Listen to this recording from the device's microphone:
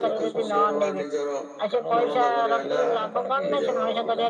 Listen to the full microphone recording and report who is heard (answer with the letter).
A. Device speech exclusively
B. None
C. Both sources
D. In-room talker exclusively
C